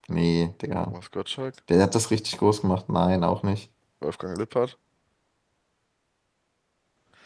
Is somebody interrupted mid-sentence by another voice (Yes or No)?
No